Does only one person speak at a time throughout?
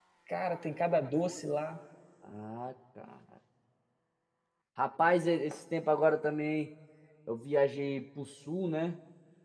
Yes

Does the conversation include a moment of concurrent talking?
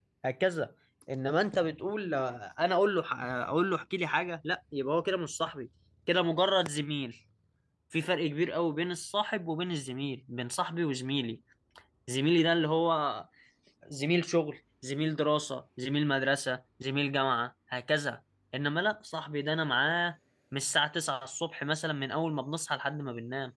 No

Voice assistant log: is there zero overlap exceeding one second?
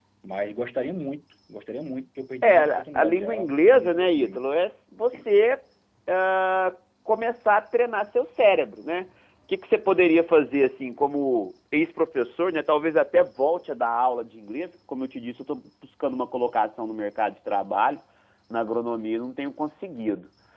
No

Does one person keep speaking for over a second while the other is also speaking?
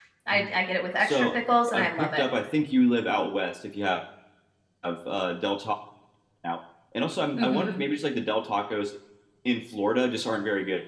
Yes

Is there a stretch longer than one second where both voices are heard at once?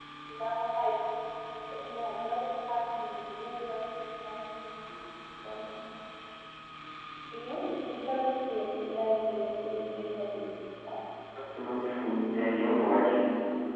No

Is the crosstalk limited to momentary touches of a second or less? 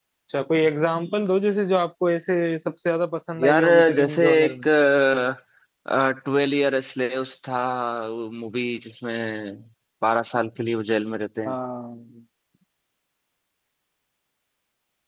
No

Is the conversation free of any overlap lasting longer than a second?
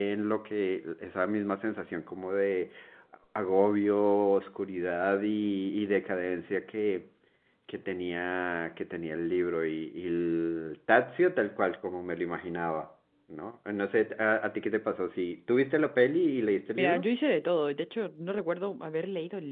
Yes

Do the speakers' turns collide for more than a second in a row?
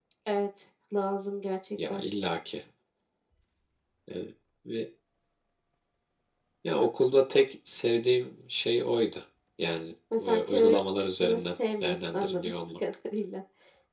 Yes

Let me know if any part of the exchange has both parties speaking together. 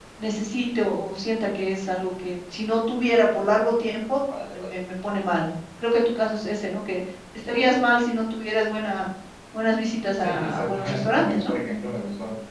Yes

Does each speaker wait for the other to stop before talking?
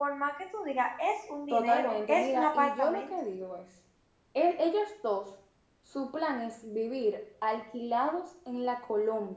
No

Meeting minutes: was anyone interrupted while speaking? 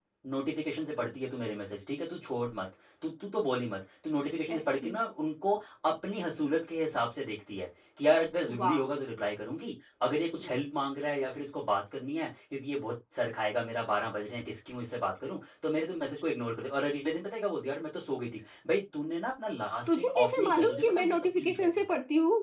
Yes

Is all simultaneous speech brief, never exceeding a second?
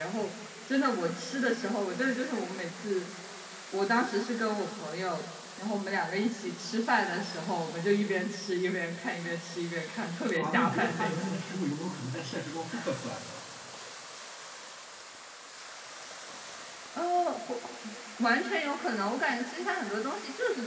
No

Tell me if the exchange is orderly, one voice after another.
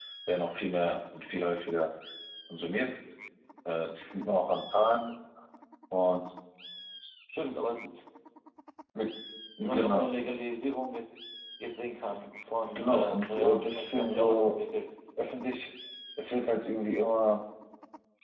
No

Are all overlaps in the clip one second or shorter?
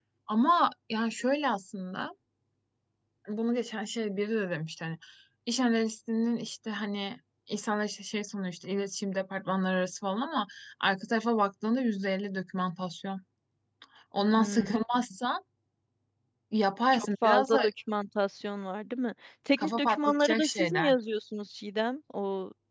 No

